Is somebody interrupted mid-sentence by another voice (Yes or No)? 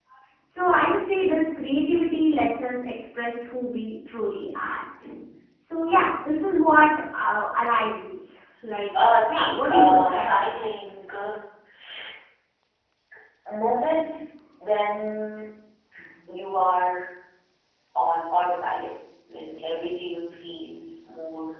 Yes